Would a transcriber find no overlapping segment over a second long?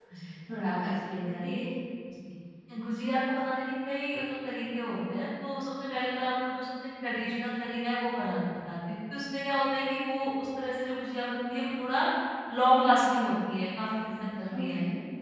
Yes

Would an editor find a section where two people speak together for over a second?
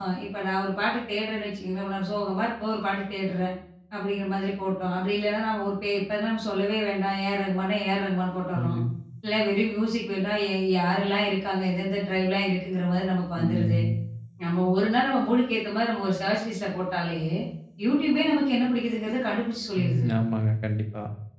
No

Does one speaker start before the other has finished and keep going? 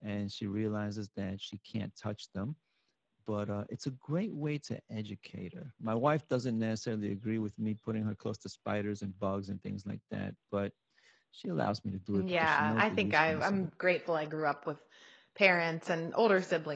Yes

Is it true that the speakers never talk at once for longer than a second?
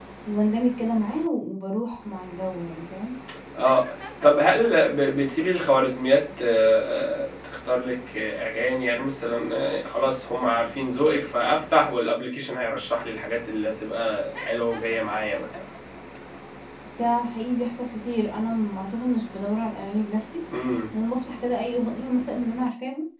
Yes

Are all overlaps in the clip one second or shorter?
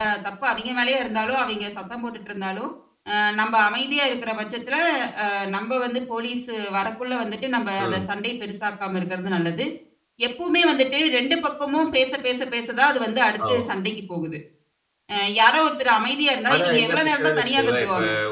No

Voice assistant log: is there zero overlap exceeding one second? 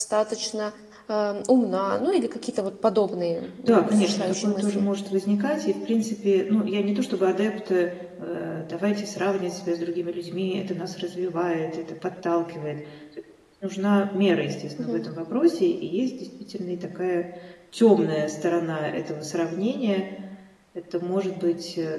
No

